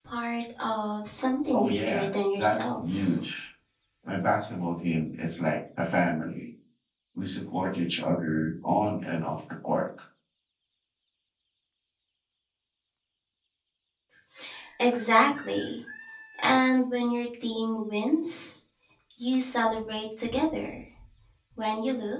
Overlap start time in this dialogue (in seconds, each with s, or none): 1.5 s